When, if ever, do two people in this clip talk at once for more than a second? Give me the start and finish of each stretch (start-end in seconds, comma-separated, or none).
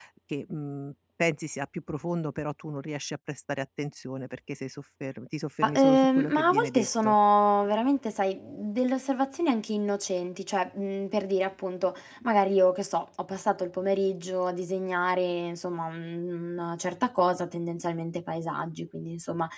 5.6-7.2